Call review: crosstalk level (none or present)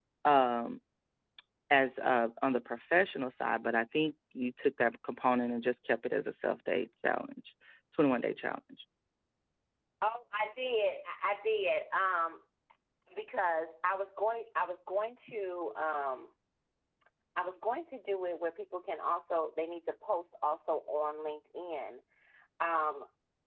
none